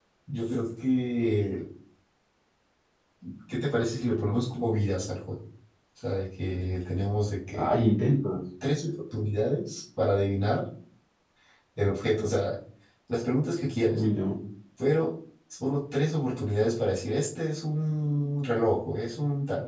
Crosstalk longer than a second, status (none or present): none